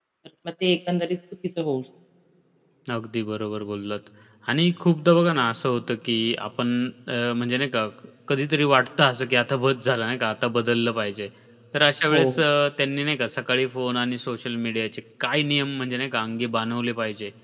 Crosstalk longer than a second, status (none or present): none